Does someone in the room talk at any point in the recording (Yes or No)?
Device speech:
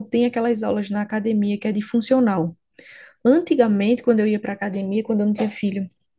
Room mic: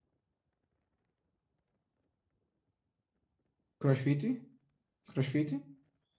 Yes